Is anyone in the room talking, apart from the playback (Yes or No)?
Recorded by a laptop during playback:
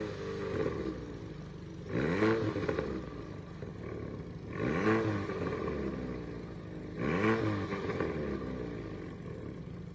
No